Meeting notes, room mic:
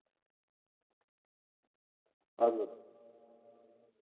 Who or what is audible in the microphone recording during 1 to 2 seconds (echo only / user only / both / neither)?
neither